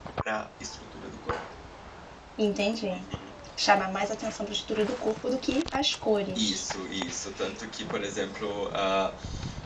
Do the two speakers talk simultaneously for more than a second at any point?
No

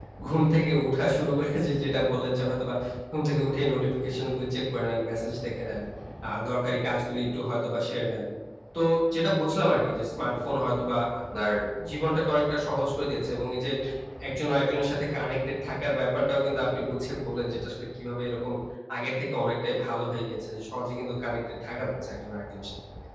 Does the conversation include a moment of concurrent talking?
No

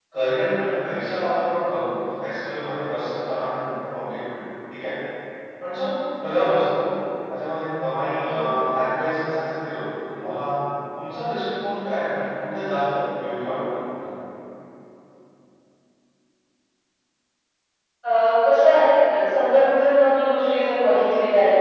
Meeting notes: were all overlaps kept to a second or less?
Yes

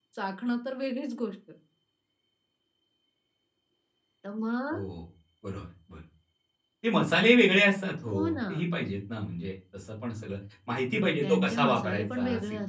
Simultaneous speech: Yes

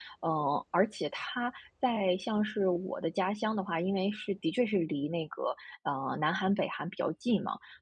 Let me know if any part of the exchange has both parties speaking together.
No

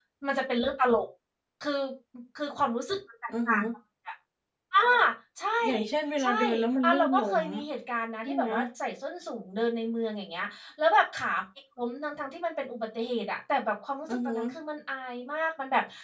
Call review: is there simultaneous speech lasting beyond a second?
Yes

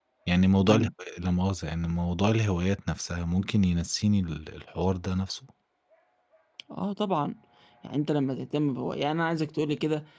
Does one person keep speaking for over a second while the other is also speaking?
No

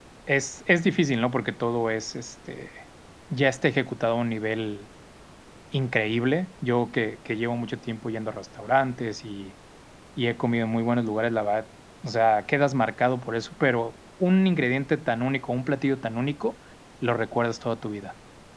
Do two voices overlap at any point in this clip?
No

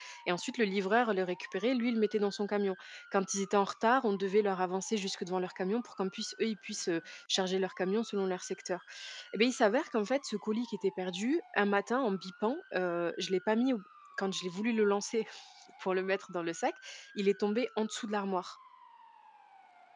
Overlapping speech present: No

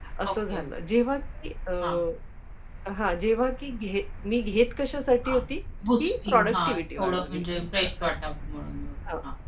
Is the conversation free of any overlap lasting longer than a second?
No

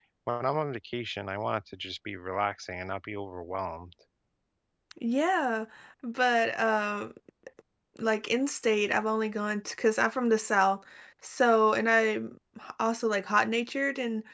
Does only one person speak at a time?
Yes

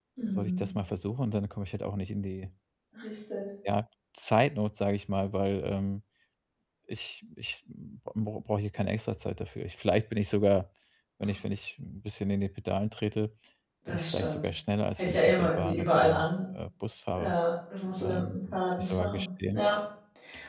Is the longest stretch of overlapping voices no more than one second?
No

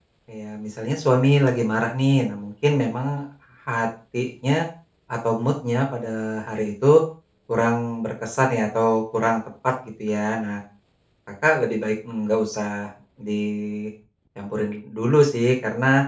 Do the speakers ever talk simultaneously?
No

